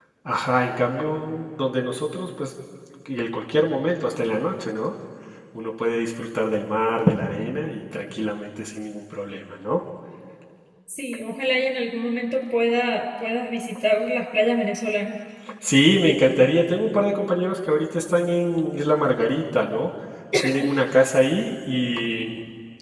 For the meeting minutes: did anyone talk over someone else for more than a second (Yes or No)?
No